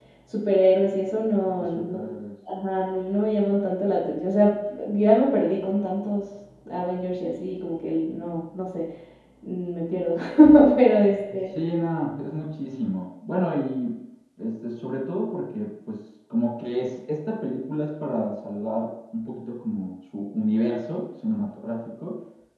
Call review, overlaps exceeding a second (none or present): none